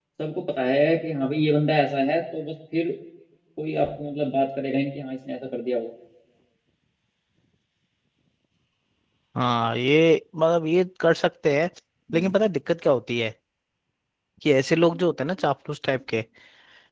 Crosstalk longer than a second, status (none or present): none